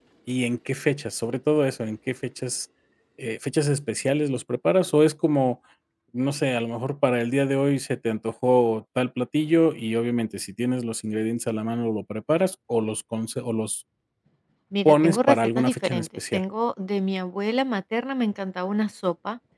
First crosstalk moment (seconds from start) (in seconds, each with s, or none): 14.8 s